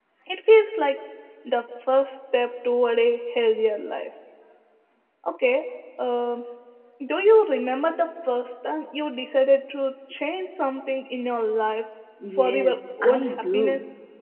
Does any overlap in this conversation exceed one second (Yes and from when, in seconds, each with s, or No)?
Yes, from 12.2 s